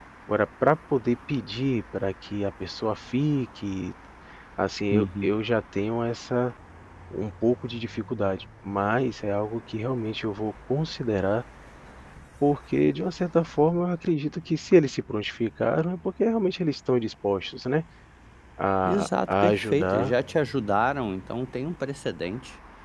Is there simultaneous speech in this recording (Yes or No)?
Yes